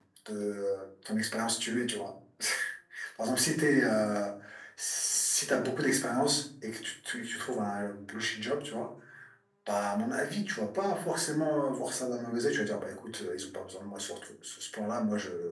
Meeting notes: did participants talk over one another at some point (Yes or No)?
No